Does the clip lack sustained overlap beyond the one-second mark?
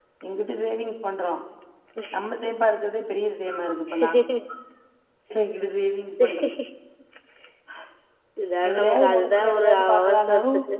No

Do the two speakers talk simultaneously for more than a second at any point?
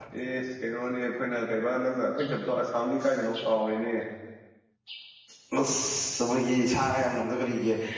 No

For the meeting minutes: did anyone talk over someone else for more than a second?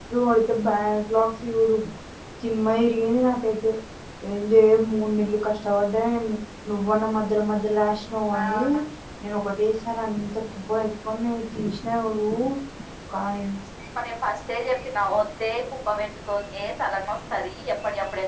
No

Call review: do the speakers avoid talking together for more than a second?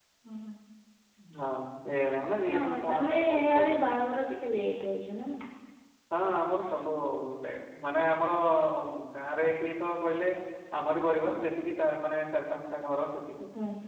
No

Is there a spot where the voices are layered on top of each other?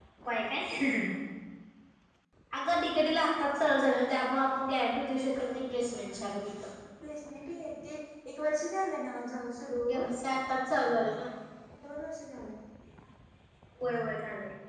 Yes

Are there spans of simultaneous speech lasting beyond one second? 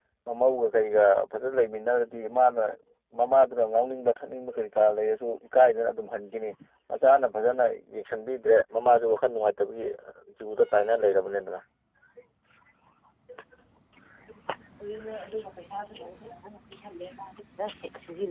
No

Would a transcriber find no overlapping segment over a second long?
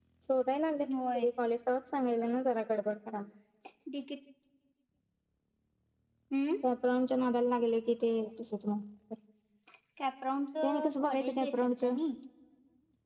No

